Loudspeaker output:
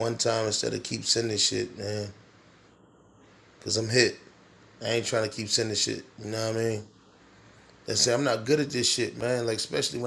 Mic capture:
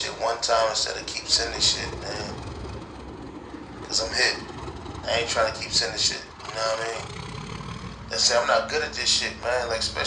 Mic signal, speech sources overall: echo only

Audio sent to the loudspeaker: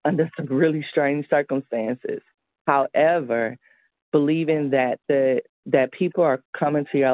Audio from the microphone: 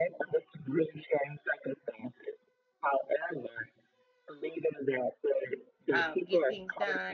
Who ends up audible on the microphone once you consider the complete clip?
both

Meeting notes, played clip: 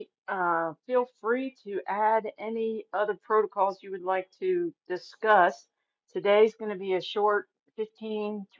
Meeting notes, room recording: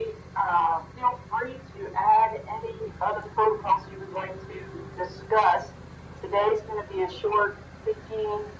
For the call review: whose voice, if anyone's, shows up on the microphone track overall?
echo only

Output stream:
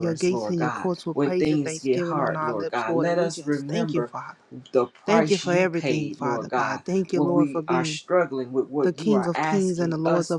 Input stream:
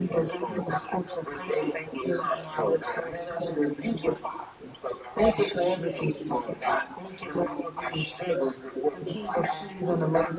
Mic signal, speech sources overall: echo only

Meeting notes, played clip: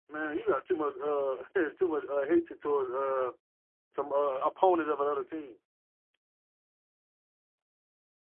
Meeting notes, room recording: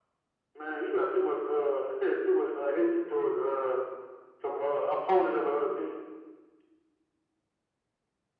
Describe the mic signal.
echo only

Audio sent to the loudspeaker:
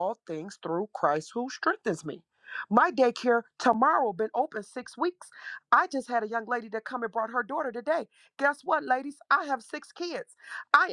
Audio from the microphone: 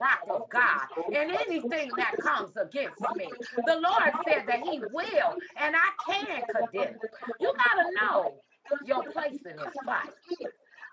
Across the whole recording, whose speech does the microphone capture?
both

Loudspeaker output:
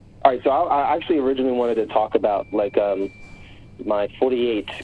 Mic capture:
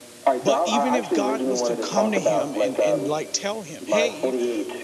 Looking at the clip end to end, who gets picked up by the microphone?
both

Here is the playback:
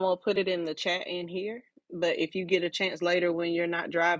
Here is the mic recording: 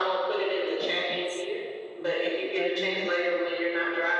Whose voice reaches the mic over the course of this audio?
both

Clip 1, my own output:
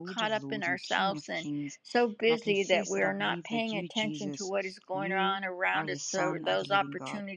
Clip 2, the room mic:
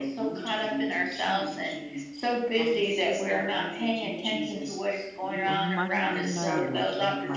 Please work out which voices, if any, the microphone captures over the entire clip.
both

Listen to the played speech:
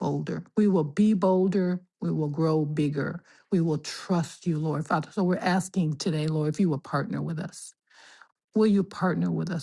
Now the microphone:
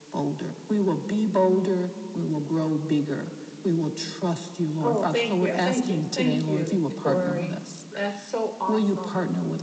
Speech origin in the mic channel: both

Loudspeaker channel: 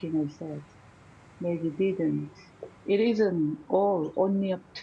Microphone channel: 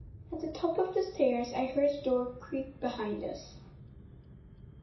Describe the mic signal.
user only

